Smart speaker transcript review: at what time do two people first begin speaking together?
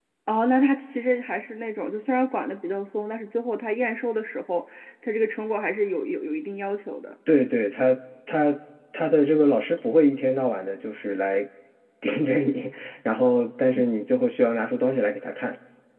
none

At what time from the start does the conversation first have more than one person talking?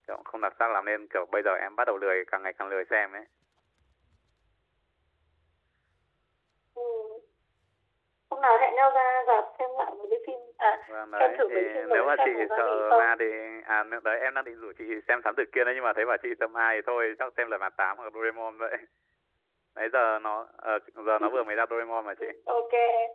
10.9 s

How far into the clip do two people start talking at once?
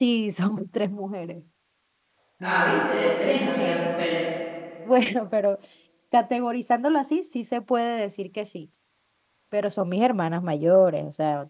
2.4 s

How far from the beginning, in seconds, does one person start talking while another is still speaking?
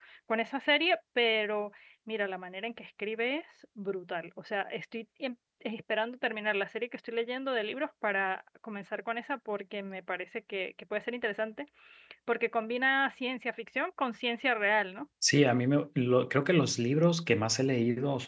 none

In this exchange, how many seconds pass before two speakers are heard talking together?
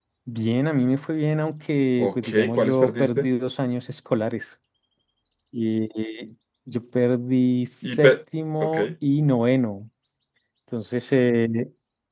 2.0 s

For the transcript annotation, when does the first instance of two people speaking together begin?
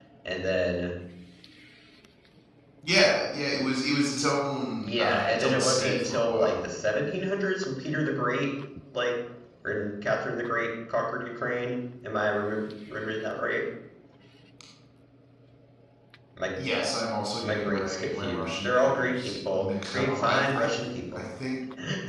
4.8 s

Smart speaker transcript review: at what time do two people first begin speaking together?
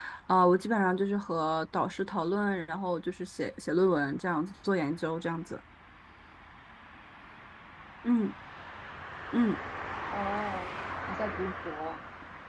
none

